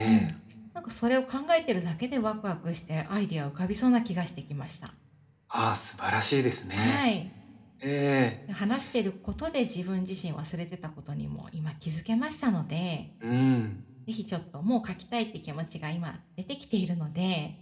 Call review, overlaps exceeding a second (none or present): none